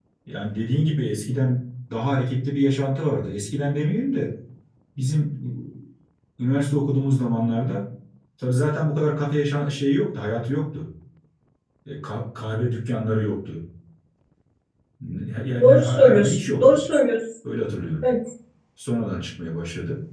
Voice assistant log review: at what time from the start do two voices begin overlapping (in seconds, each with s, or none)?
15.6 s